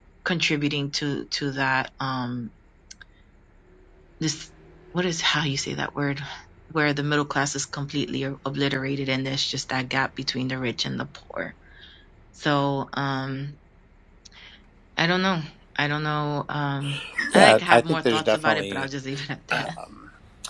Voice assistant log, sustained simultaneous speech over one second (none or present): present